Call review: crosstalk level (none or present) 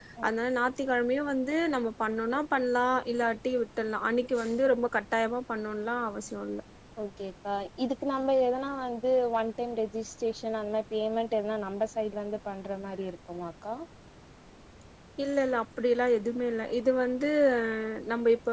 none